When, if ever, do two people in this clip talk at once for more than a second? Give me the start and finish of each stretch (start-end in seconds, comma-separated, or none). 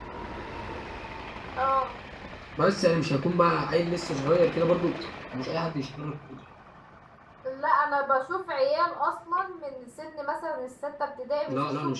none